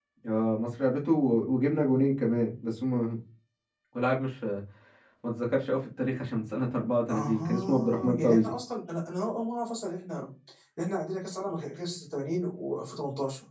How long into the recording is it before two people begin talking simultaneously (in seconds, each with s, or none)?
7.1 s